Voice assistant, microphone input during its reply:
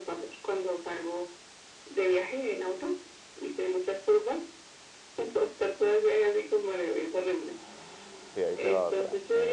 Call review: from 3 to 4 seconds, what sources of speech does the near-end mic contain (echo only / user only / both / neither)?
echo only